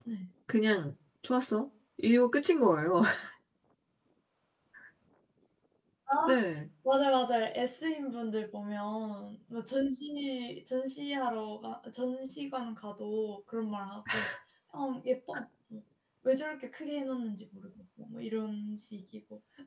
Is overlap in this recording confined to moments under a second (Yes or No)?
Yes